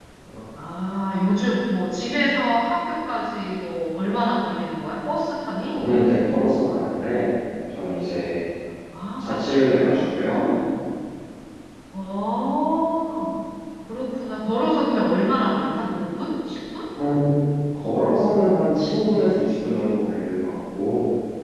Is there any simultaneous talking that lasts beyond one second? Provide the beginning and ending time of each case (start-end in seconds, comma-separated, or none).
9.2-10.5